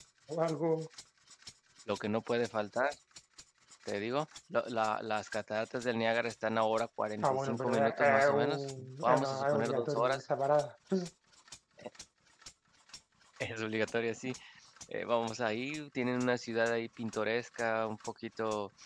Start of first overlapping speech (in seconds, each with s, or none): 7.2 s